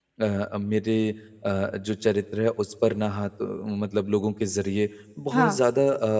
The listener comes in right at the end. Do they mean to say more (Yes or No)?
No